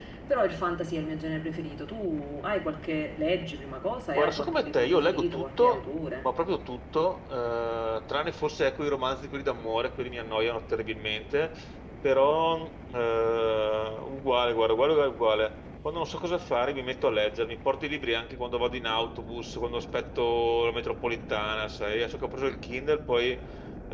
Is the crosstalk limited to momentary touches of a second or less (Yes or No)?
No